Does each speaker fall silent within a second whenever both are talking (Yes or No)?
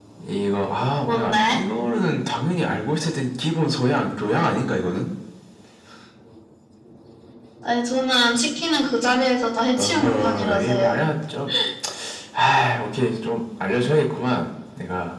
No